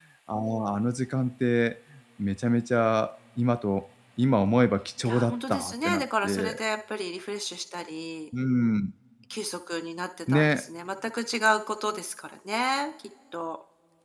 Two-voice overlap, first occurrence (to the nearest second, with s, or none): 5 s